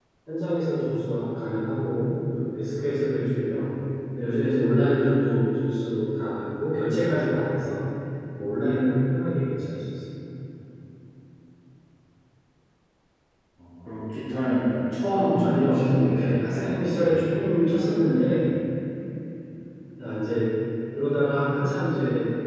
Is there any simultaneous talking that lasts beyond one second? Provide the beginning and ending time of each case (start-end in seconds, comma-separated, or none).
15.1-17.2